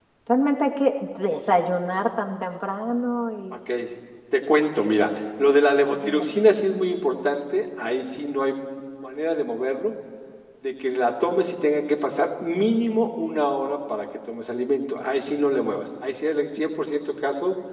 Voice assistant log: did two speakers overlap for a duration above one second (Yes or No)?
No